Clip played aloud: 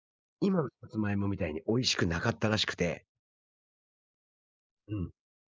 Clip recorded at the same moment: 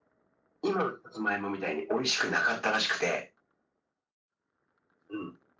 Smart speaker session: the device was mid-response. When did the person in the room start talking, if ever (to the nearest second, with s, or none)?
none